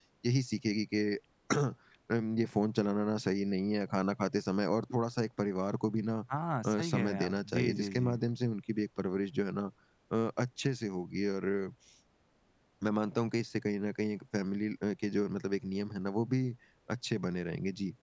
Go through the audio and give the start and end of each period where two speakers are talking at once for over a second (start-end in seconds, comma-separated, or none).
6.6-8.2